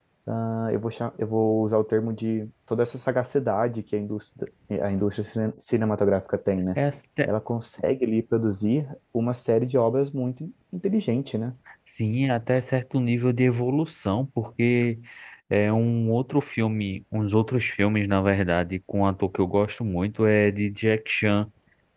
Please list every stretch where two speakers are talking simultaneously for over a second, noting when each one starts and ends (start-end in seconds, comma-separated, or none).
none